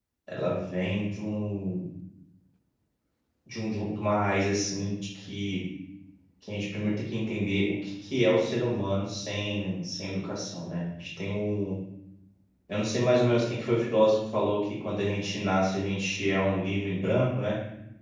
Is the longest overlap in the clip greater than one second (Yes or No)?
No